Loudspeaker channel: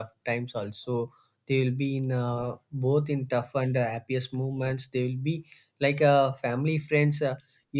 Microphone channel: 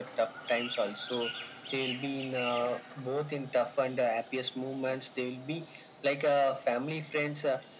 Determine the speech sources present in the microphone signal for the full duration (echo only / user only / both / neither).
echo only